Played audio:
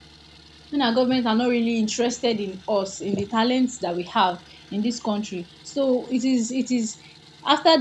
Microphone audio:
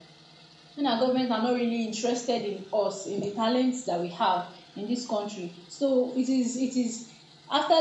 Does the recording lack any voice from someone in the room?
Yes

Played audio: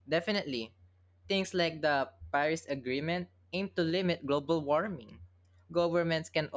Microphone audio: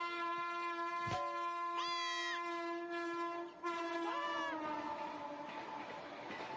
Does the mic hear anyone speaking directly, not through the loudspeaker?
No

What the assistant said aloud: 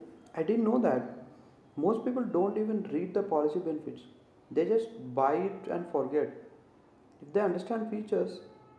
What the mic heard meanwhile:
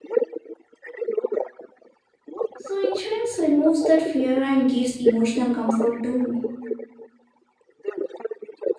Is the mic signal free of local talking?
No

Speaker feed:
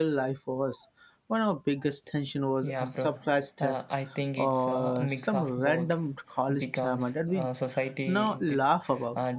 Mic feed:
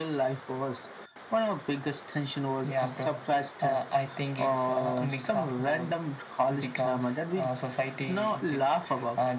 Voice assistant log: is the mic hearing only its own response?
Yes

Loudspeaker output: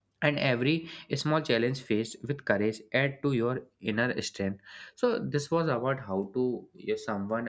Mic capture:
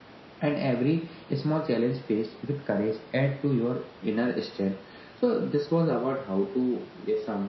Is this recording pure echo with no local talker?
Yes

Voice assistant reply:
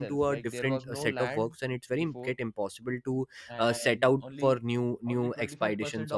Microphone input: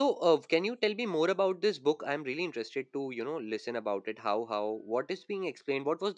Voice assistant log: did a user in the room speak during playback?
Yes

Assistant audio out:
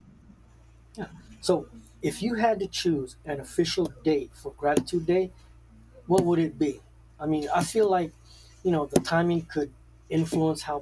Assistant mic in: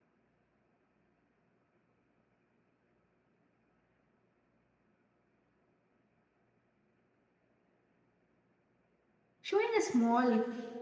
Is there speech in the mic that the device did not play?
Yes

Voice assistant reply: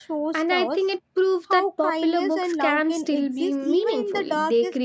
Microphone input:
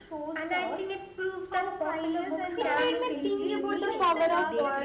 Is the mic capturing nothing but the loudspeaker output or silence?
No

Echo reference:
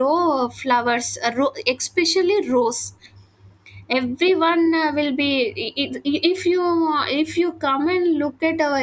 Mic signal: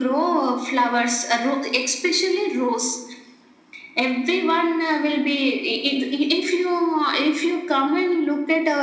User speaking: No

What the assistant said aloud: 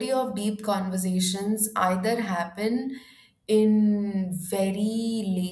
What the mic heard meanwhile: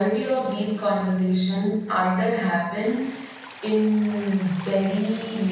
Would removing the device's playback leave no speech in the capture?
Yes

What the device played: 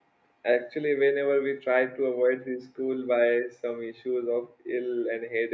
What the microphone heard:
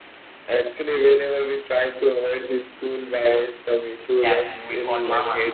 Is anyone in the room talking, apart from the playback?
Yes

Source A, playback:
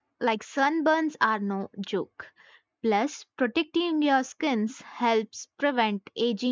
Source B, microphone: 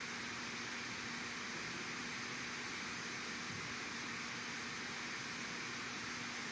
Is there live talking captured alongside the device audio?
No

